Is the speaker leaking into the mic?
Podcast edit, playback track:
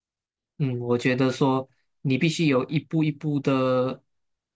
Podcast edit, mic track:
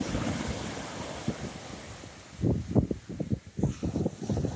No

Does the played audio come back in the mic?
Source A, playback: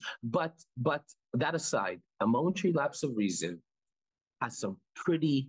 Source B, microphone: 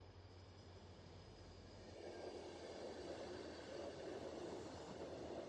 No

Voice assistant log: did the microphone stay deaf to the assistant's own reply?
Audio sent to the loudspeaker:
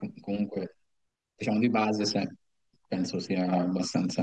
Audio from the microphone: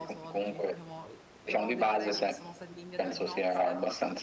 No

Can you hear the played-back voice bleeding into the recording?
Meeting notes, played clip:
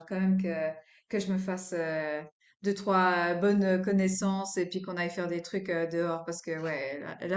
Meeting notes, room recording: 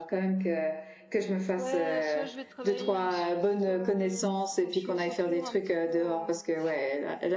Yes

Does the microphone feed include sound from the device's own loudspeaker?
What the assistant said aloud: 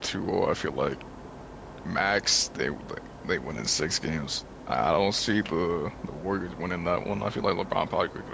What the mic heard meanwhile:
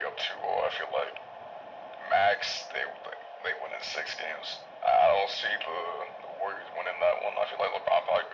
Yes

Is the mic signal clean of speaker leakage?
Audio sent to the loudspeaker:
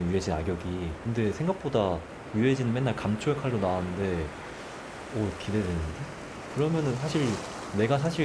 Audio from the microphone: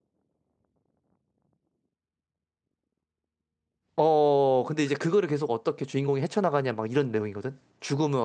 Yes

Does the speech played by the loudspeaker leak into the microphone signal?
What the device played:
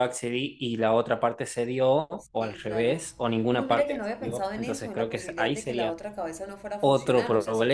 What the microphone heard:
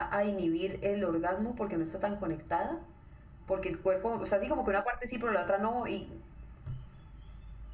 No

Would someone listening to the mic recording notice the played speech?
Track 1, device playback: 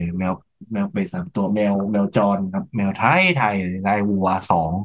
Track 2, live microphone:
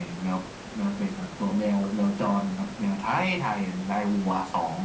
Yes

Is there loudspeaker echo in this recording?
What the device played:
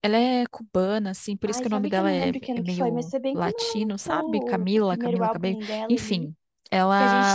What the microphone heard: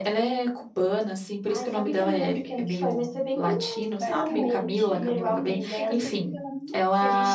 Yes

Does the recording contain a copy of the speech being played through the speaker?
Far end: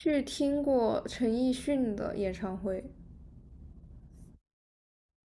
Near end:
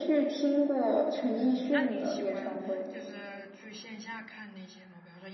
Yes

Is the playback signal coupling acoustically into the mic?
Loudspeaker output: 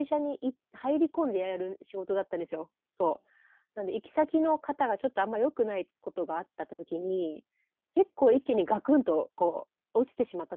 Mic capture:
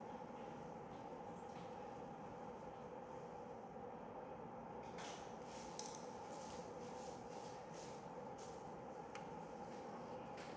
No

